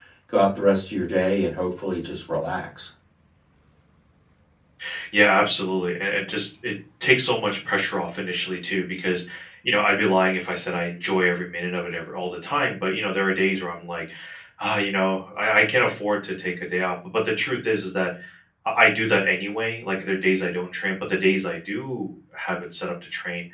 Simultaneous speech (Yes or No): No